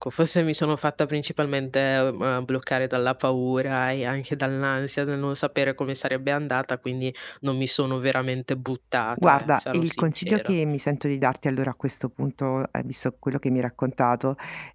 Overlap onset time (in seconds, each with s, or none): 9.2 s